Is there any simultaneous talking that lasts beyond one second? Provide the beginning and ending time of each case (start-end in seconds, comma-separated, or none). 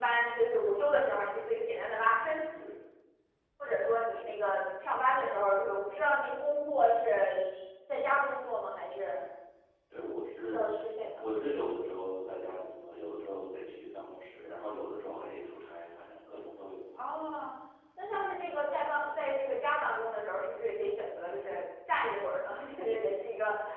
none